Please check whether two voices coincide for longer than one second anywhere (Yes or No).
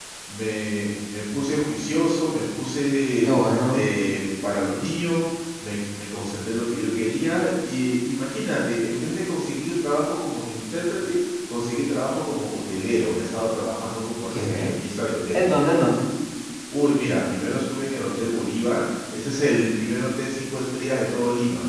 No